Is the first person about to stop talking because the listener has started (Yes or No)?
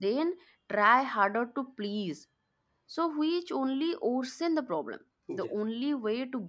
No